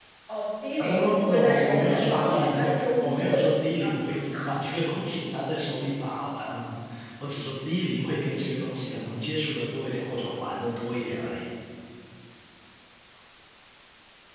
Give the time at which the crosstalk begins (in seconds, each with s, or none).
0.8 s